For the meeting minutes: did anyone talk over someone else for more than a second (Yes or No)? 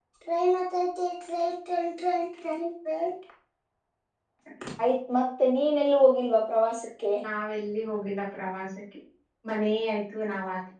No